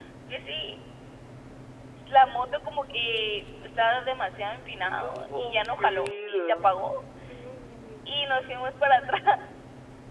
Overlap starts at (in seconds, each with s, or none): 4.8 s